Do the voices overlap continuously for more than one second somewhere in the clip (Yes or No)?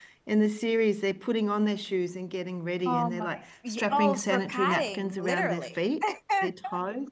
Yes